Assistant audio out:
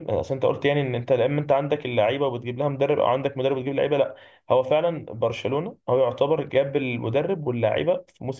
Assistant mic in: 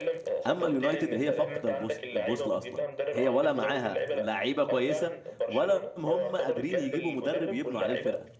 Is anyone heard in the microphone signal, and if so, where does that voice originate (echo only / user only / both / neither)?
both